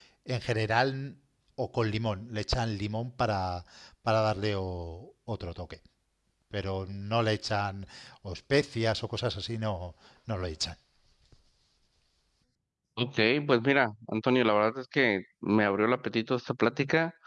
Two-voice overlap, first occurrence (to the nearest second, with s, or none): none